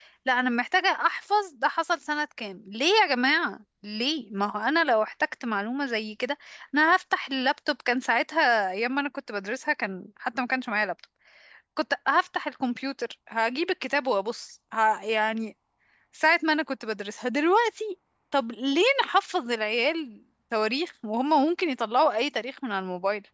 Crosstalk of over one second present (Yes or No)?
No